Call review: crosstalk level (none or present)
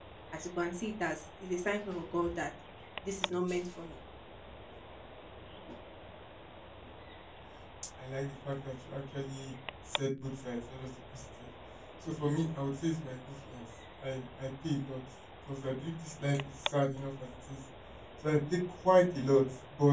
none